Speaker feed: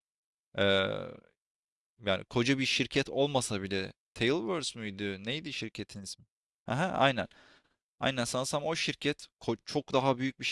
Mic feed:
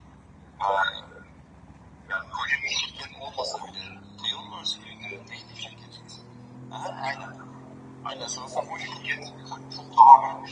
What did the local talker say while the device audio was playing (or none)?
none